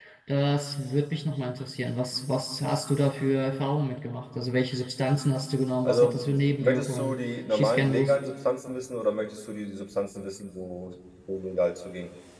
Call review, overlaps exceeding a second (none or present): present